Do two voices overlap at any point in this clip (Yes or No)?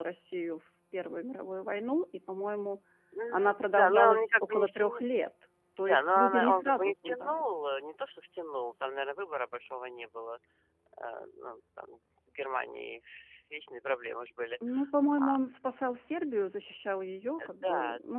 Yes